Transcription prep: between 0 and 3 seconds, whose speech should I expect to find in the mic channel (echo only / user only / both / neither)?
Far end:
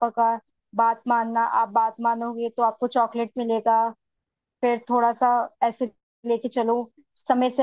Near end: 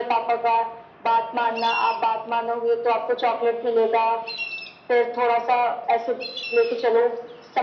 echo only